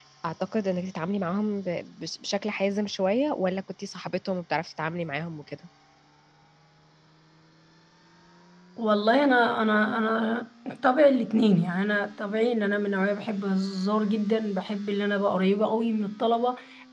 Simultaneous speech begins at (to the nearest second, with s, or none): none